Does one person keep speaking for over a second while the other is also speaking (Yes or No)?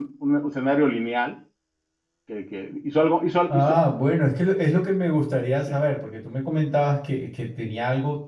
No